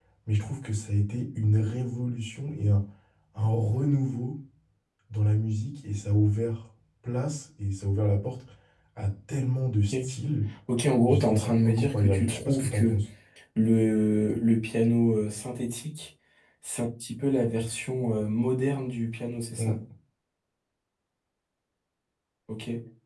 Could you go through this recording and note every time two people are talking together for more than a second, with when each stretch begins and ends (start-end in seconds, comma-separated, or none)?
11.1-13.0